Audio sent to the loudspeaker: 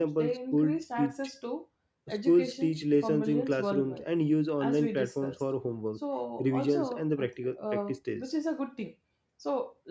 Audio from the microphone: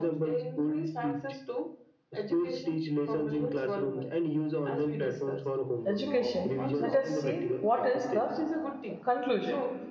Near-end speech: present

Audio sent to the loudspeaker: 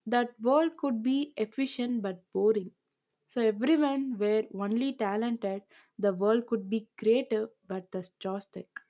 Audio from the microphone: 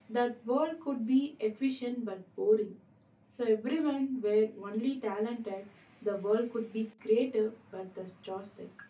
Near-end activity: none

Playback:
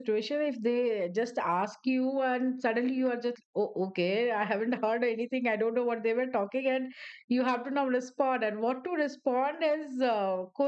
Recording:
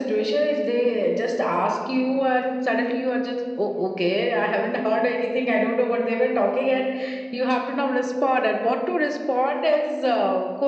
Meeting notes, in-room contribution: none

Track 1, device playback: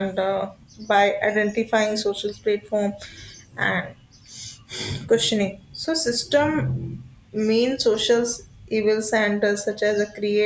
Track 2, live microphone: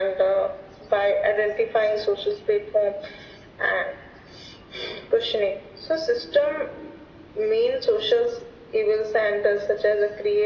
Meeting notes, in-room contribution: none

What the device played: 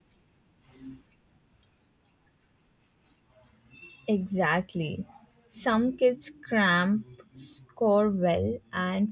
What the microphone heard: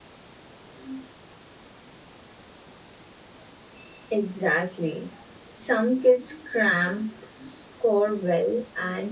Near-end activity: none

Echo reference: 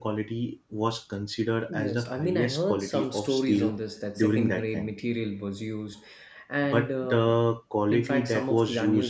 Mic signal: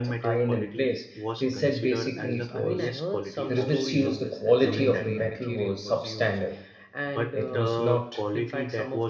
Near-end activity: present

